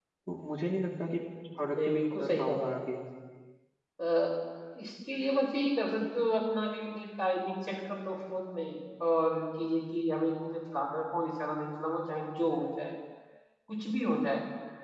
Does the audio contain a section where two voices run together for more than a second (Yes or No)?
Yes